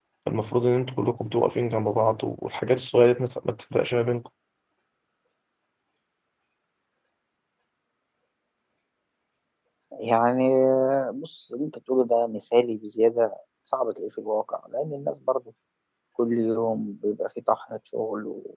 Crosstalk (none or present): none